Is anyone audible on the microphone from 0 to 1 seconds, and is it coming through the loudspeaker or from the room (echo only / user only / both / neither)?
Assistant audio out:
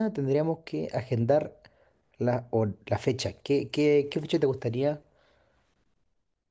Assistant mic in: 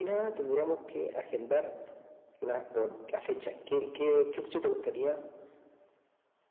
echo only